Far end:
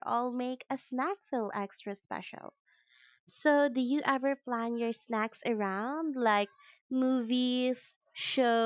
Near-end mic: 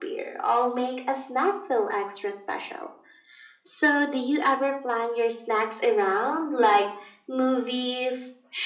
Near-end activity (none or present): none